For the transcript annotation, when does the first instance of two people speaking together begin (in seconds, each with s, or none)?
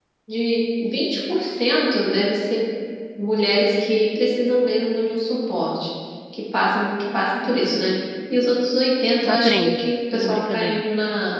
9.2 s